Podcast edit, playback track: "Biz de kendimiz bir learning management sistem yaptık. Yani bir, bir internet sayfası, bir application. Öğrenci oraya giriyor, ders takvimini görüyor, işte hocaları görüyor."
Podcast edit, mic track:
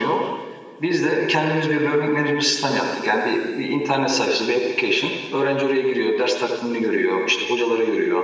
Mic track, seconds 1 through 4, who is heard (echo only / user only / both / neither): echo only